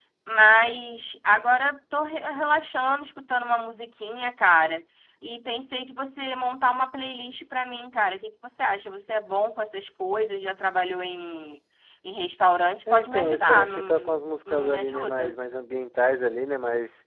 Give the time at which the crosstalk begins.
12.9 s

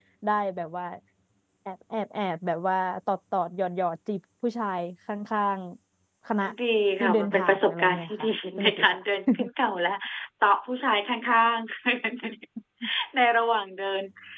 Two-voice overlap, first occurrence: 7.0 s

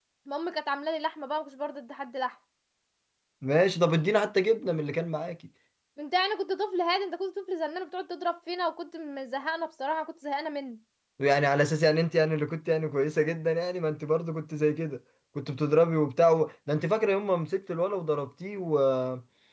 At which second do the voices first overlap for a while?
none

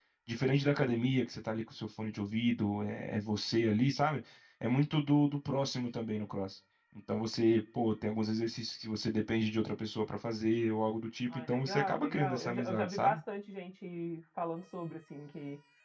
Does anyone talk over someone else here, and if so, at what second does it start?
11.3 s

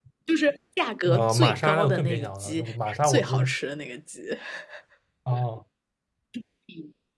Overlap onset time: 1.1 s

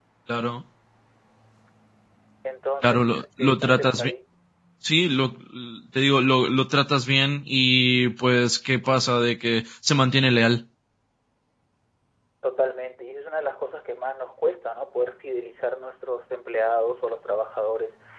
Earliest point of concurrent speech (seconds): 2.8 s

